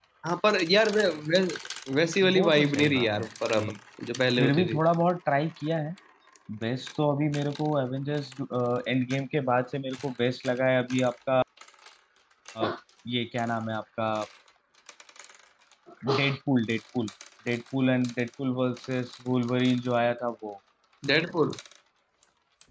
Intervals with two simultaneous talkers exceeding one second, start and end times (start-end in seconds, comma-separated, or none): 2.3-3.7